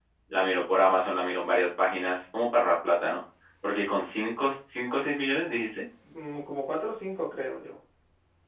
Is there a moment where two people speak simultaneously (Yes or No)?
No